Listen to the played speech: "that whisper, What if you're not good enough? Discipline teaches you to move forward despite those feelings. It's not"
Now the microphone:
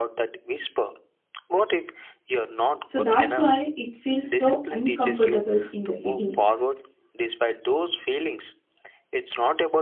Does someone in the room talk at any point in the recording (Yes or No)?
Yes